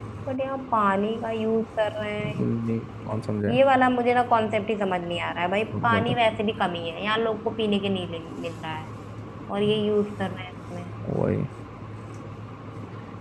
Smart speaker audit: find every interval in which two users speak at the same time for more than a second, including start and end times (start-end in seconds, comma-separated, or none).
none